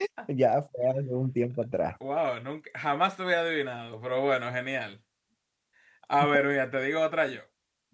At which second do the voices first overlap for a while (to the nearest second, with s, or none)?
none